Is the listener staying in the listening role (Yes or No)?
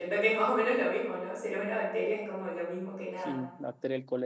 No